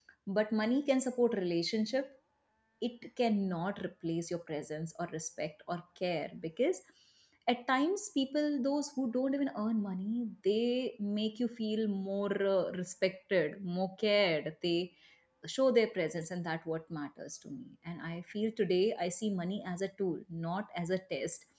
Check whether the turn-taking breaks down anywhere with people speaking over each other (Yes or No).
No